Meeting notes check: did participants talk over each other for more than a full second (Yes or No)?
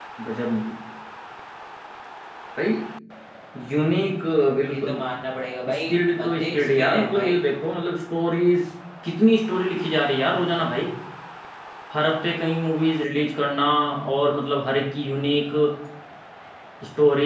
Yes